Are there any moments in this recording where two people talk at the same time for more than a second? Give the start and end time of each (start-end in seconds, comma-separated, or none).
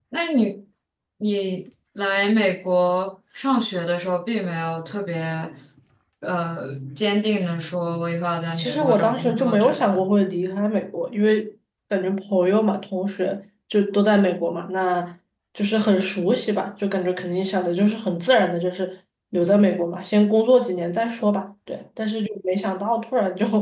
8.6-10.1